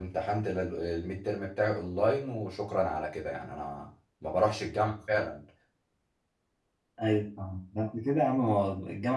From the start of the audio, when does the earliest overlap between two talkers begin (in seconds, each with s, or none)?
none